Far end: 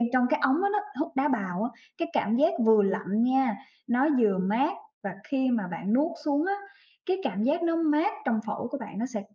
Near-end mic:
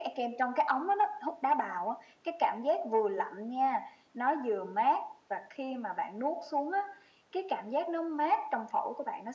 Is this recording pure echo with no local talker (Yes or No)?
Yes